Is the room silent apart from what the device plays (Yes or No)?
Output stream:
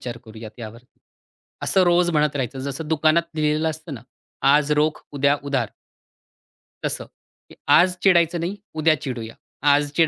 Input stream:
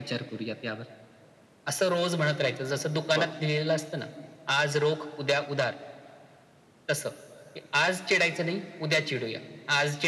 No